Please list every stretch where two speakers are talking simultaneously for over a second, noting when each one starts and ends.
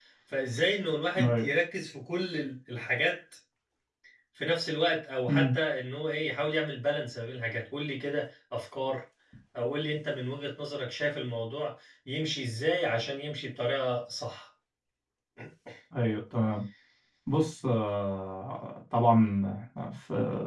none

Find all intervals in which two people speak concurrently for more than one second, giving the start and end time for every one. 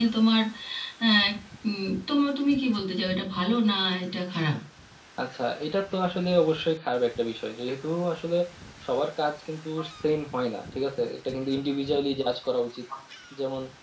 none

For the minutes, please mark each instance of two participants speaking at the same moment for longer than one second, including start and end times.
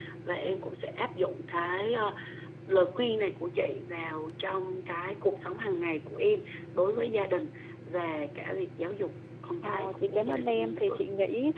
9.6-11.0

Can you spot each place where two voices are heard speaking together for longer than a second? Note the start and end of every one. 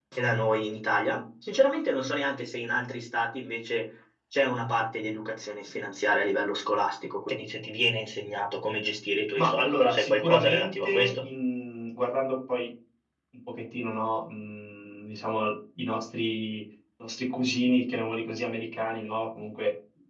9.3-11.2

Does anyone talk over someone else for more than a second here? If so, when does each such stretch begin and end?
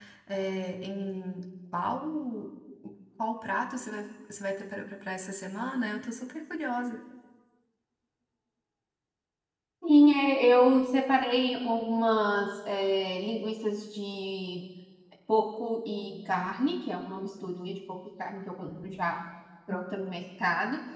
none

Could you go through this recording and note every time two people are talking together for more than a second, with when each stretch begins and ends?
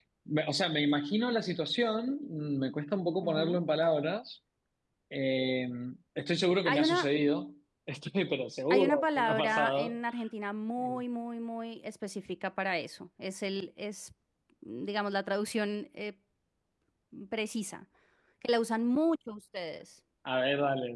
8.7-10.0

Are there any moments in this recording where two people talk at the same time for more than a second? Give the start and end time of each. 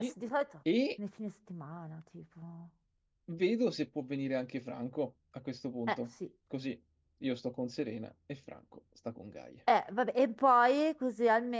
none

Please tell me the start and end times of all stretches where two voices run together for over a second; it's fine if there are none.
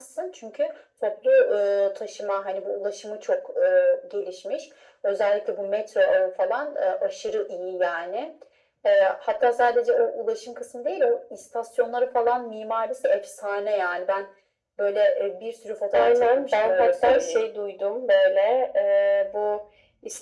15.9-17.5

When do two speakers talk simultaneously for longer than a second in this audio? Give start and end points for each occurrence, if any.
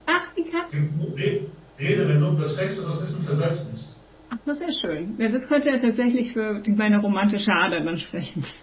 none

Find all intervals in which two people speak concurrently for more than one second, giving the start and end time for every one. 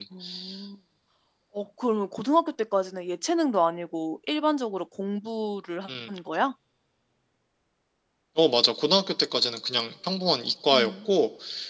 none

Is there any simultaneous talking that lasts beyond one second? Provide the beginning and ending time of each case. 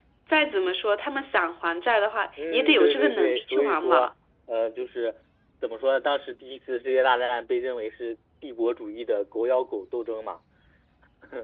2.5-4.1

